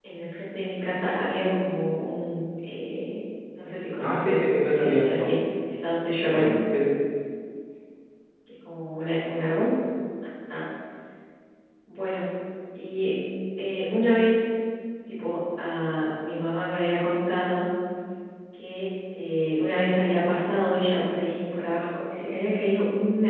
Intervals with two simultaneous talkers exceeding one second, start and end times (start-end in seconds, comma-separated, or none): 4.0-5.3